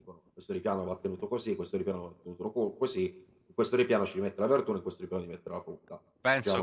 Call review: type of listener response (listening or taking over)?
taking over